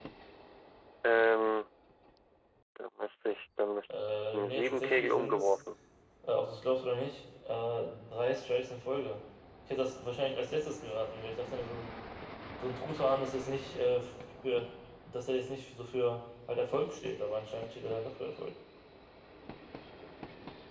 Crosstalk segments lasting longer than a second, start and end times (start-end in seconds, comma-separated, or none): 4.3-5.5